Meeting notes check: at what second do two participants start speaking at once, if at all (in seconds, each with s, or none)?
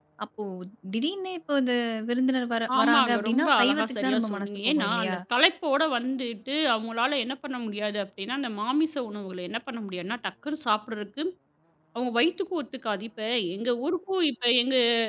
2.7 s